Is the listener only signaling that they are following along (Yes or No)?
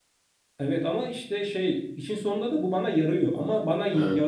Yes